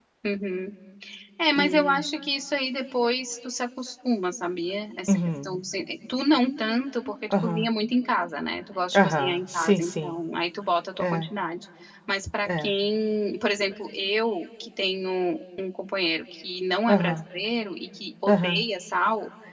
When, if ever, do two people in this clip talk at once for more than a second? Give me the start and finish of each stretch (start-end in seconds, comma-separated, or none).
8.9-10.2